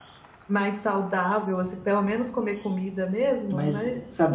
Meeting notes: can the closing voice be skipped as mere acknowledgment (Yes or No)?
No